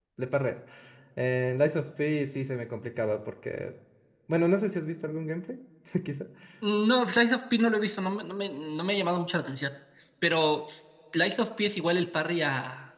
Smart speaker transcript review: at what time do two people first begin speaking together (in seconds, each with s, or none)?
none